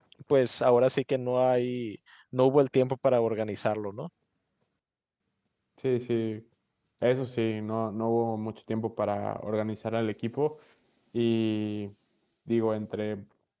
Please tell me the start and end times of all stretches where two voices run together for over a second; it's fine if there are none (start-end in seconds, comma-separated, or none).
none